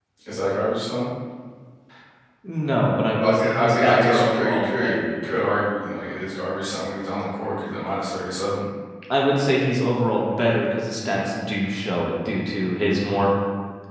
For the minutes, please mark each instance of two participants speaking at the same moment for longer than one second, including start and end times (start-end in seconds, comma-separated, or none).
3.2-5.4